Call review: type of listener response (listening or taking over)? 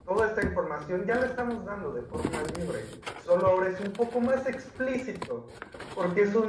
listening